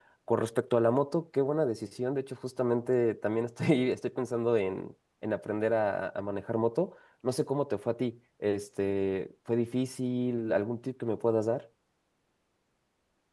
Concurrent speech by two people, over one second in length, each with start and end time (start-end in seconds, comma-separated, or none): none